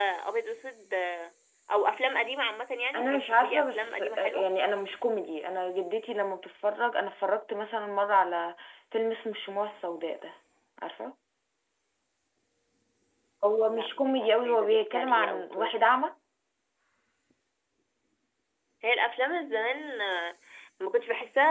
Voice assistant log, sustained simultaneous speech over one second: present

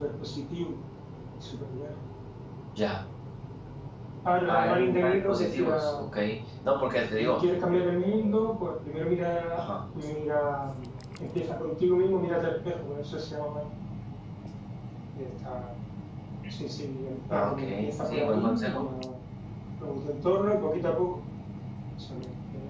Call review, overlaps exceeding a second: present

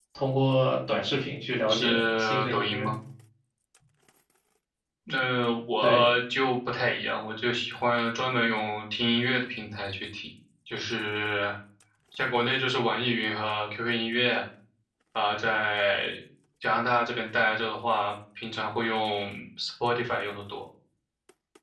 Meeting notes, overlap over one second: present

